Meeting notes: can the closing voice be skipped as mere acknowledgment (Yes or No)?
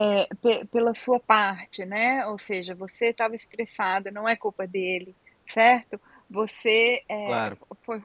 Yes